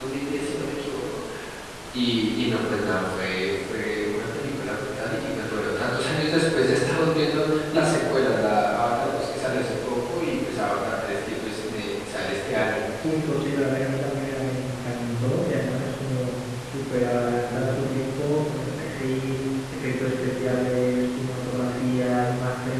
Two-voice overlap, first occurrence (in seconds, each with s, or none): none